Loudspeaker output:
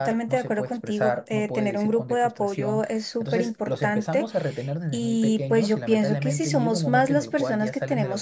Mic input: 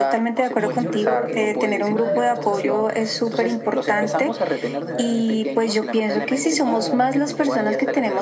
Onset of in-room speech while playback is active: 0.6 s

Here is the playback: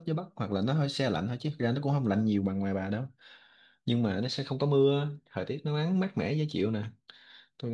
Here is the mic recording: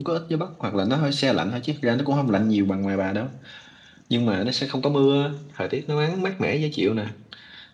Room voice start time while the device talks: none

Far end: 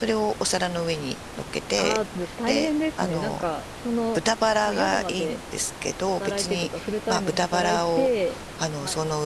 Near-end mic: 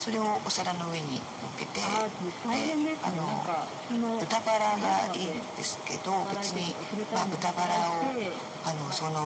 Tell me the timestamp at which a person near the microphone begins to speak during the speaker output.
none

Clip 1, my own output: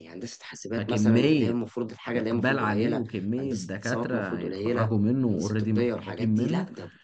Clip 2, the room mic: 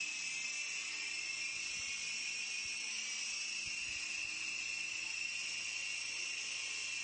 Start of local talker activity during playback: none

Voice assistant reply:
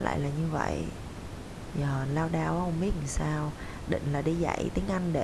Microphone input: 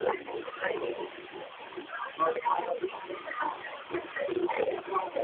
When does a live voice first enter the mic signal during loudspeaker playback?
none

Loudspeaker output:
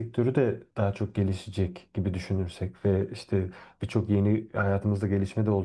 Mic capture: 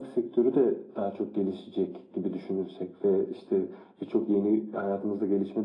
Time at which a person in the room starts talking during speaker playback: none

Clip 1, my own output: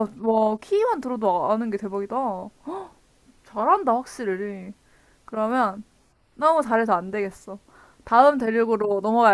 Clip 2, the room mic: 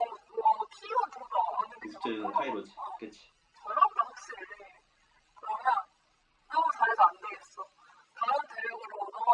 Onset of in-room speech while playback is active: 1.8 s

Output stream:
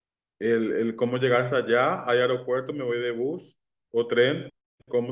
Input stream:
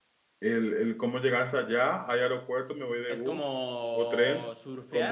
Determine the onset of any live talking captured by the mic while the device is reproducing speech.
3.1 s

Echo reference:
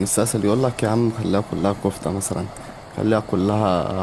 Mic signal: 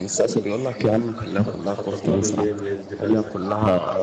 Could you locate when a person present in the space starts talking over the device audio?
1.3 s

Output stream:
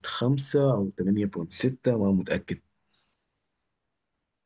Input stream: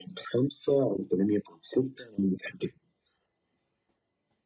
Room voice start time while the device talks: none

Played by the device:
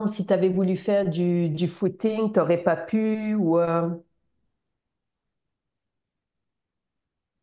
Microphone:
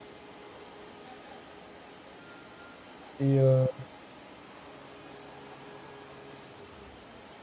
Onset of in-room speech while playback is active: 3.2 s

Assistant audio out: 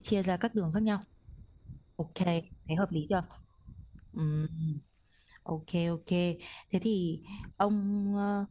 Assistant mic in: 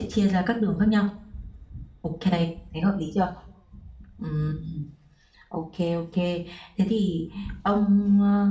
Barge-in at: none

